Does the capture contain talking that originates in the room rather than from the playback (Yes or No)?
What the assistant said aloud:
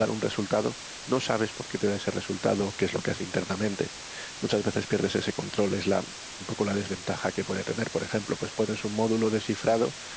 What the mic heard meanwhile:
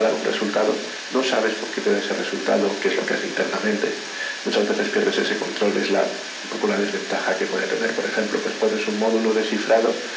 No